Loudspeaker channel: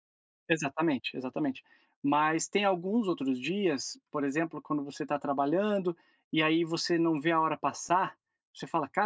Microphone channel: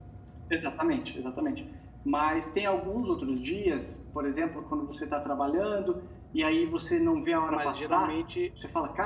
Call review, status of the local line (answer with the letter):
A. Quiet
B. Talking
B